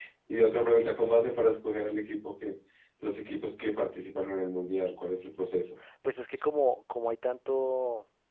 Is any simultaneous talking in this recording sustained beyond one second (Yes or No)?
No